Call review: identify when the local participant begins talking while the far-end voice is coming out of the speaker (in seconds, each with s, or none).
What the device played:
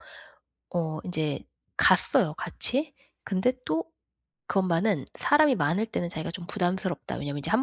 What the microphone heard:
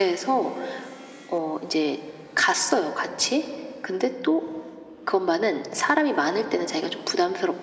none